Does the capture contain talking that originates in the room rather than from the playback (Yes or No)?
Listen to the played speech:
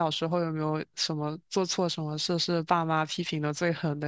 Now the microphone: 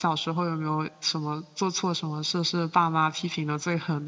No